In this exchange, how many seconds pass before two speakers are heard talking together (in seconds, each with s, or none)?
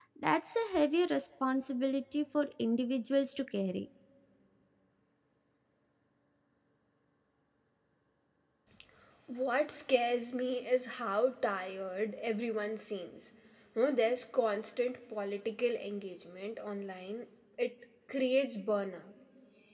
none